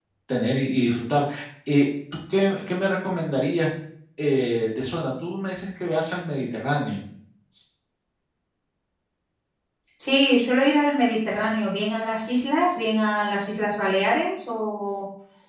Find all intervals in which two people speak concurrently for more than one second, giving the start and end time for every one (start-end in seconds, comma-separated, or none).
none